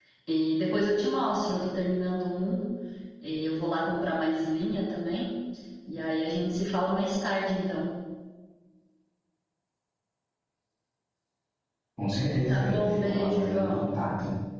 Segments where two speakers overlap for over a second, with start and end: 12.5-13.9

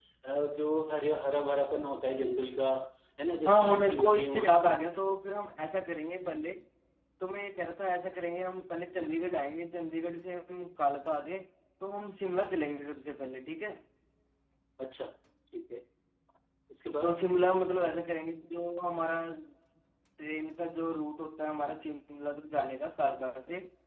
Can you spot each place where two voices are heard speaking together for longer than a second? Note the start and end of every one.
3.5-4.8

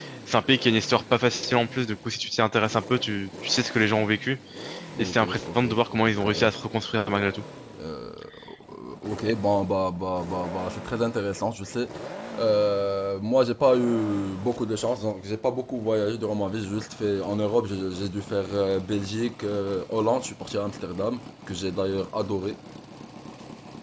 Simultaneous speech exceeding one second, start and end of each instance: 5.0-6.5

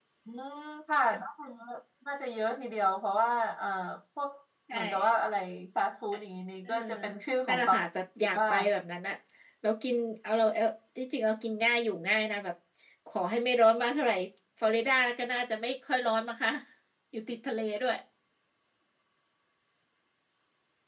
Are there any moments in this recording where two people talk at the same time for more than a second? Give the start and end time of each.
none

